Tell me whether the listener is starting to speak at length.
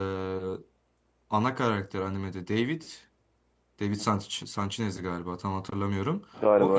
No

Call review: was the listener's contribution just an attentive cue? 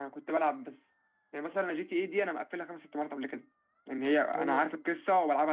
Yes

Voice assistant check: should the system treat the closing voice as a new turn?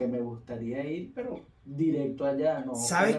Yes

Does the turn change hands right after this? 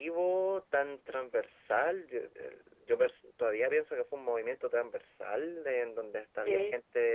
No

